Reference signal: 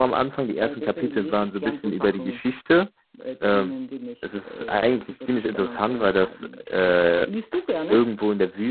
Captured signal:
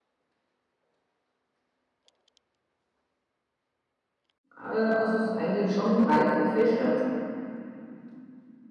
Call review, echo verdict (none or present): none